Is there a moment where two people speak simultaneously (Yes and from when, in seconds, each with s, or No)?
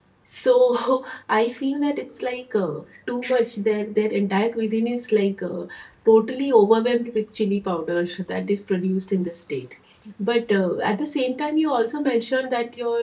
No